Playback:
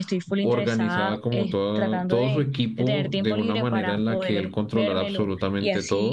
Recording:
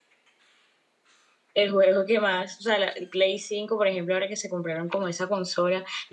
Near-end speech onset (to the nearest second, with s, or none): 2 s